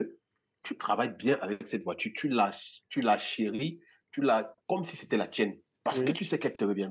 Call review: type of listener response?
listening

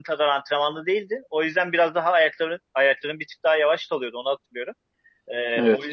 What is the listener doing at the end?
listening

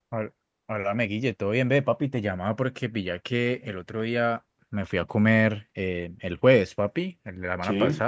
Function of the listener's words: listening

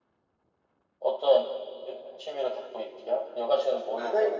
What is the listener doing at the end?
taking over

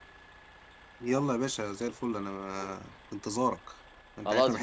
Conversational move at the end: taking over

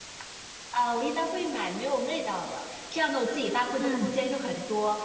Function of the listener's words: listening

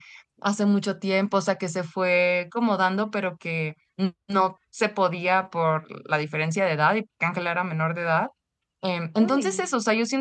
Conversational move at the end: listening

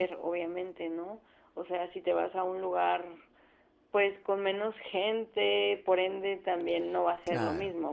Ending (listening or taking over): listening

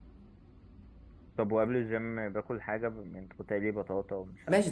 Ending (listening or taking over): taking over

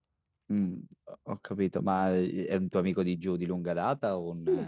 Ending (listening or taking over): taking over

